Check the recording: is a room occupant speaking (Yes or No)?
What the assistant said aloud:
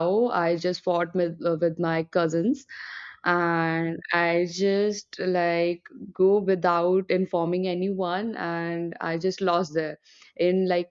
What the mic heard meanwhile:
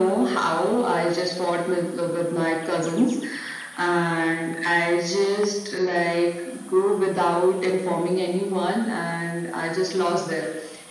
No